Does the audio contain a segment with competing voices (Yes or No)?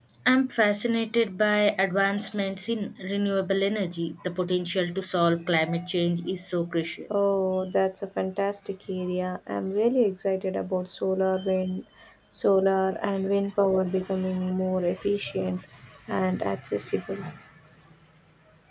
No